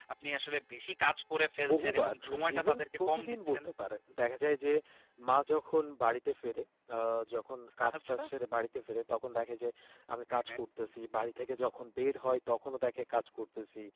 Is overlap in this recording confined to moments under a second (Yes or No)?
No